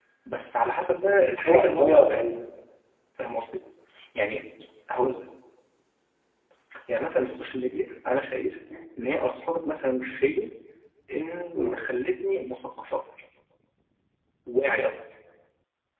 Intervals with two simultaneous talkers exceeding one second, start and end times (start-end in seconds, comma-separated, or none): 1.0-2.2